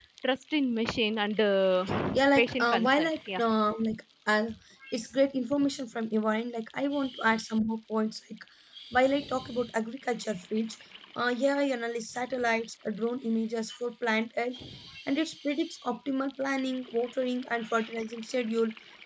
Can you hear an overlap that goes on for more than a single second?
Yes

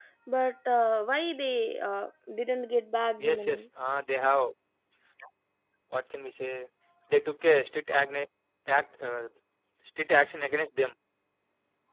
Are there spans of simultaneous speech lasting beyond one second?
No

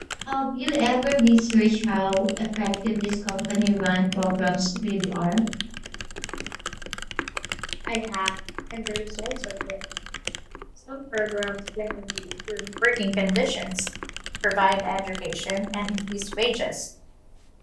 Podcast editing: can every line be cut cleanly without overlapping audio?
Yes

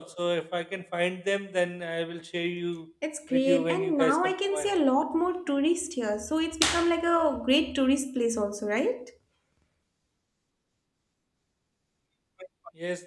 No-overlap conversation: No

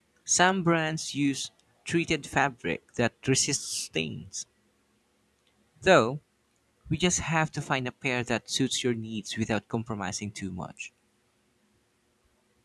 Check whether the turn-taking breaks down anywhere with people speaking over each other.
No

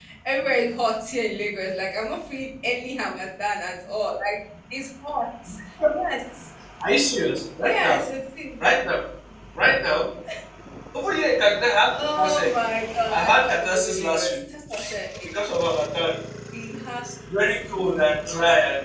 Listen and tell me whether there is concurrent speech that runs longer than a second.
Yes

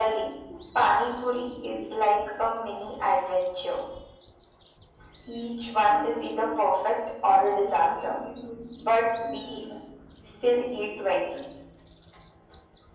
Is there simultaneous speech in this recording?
No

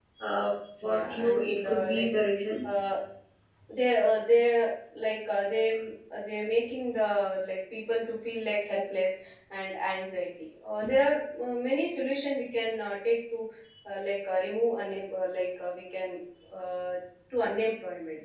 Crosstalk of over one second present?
Yes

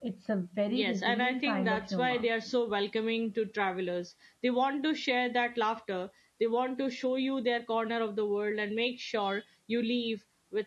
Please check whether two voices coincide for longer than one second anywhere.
Yes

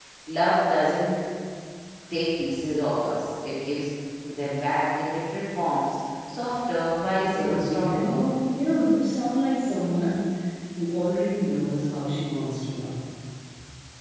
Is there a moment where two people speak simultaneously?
Yes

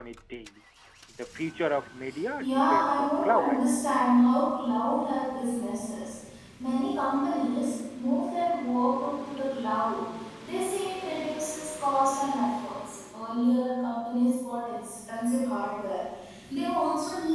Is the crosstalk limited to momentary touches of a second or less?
No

